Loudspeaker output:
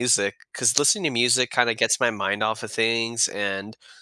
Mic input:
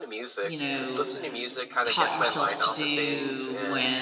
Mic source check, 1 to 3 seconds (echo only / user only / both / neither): both